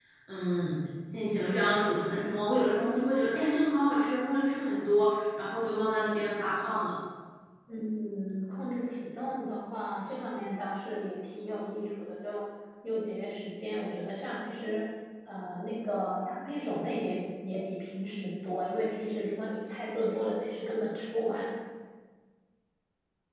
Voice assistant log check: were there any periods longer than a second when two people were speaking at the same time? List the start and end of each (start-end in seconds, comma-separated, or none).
none